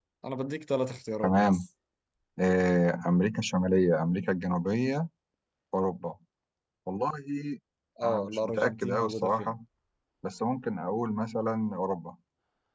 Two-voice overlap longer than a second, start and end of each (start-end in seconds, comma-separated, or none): 8.0-9.6